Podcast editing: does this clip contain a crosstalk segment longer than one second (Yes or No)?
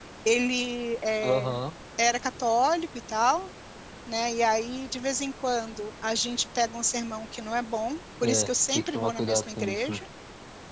Yes